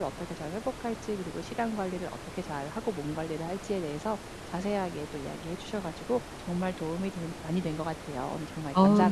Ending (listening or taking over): taking over